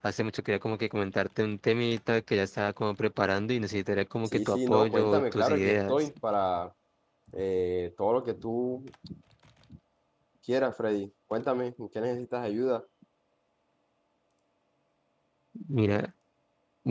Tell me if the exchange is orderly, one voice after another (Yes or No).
No